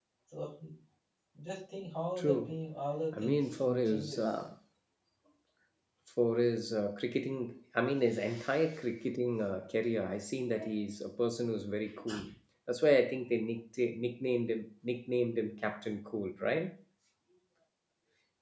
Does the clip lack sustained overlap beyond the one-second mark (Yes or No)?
No